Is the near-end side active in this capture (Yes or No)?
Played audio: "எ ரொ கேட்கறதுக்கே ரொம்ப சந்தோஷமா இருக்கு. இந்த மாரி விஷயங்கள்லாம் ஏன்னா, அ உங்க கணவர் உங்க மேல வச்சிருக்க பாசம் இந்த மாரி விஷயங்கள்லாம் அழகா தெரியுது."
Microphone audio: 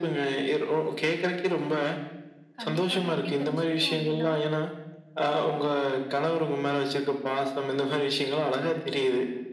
Yes